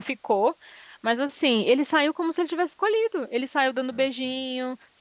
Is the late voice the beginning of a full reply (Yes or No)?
No